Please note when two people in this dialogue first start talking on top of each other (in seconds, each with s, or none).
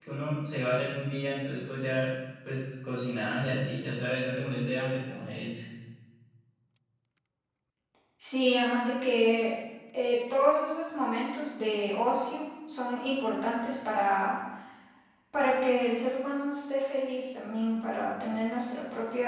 none